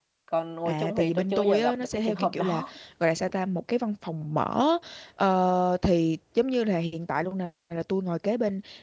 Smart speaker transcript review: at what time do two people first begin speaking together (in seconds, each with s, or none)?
0.7 s